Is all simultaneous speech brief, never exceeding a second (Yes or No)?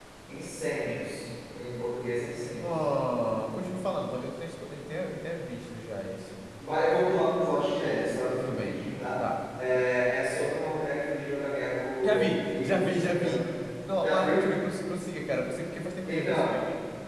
No